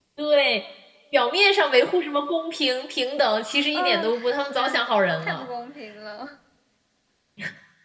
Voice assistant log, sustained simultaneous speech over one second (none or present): present